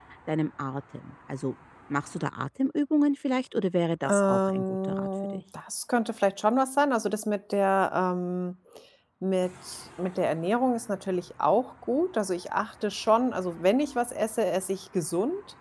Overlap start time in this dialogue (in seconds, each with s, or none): 4.0 s